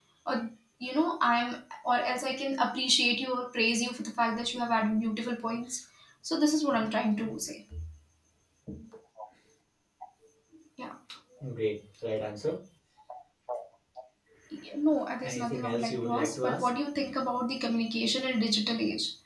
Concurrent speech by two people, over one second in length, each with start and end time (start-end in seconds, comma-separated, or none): 15.2-16.7